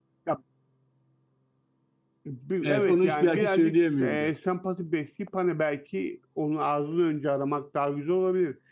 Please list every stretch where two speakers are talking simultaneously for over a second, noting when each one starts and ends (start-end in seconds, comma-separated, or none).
2.6-4.3